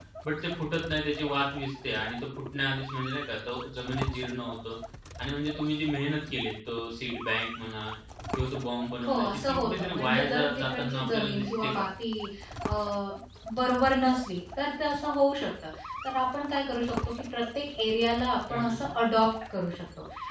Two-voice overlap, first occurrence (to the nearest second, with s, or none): 9 s